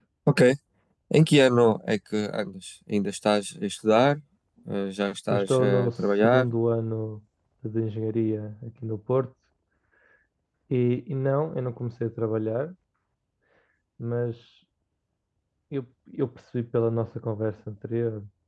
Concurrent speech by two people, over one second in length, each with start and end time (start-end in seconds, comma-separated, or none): 5.3-6.5